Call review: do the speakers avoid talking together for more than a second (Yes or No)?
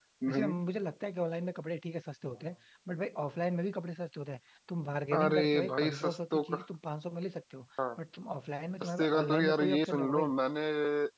No